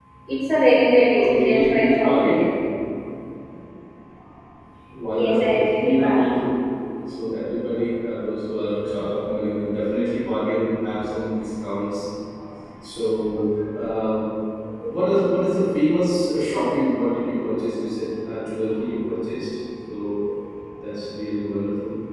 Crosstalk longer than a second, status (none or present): present